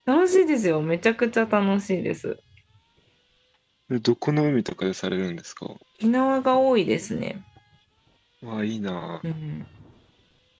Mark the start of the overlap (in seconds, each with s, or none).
none